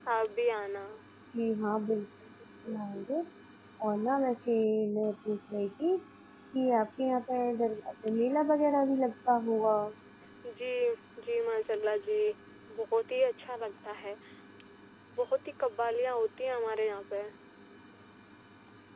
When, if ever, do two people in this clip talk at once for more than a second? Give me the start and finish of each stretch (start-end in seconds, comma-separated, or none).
none